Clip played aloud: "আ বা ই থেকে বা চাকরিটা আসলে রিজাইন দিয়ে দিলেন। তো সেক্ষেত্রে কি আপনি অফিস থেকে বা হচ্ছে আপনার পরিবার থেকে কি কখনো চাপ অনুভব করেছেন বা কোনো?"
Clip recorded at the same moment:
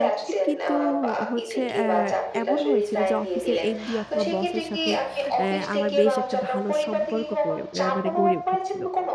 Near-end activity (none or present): present